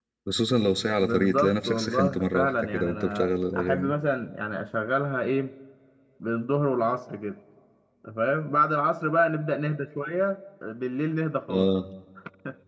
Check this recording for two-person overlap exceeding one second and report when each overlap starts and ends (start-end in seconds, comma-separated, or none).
1.0-4.0